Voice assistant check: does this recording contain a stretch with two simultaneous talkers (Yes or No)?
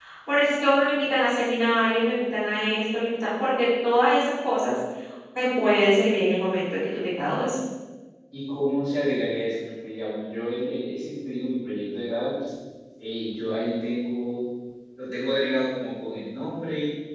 No